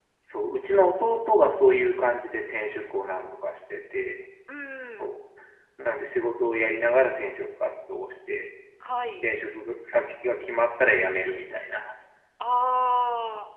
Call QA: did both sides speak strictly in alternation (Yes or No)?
Yes